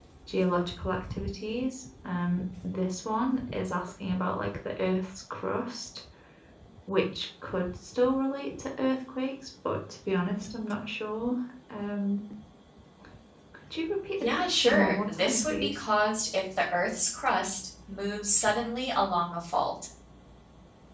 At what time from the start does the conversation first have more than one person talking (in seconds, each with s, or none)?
14.2 s